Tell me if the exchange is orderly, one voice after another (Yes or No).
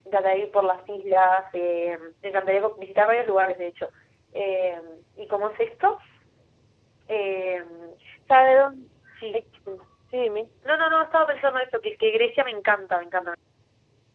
Yes